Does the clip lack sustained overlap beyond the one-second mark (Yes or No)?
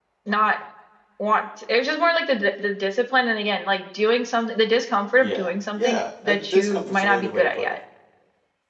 No